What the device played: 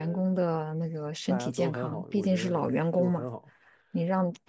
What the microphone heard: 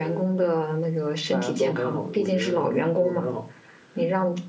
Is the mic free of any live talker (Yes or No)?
Yes